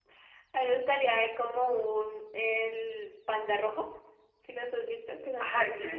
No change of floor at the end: No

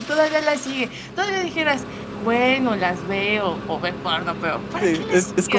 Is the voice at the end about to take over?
Yes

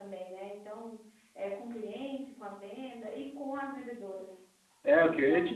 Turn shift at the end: Yes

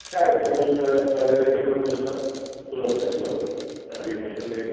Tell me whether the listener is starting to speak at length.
No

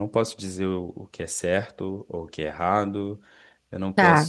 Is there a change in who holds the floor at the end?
No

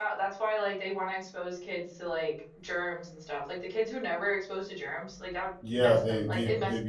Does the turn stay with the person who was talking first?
No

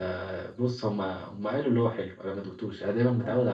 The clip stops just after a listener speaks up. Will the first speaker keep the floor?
No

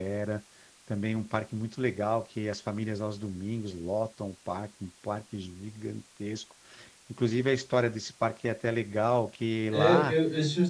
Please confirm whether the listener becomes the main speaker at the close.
Yes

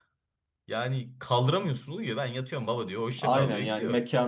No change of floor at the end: No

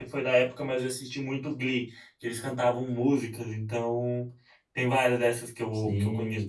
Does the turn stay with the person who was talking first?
No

